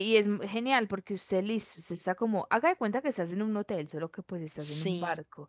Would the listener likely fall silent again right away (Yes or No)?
Yes